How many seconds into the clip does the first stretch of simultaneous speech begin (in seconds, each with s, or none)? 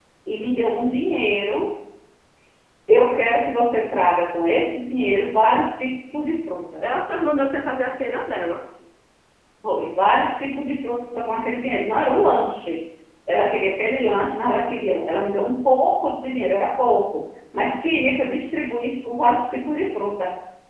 none